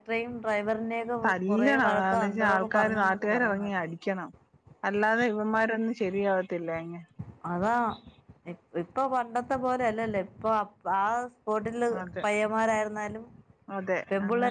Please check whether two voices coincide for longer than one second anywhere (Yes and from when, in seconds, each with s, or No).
Yes, from 1.2 s